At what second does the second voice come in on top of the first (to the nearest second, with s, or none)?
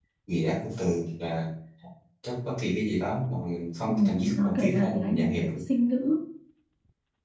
4 s